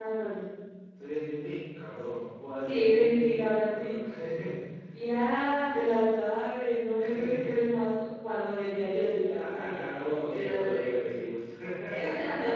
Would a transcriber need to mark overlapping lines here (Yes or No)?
Yes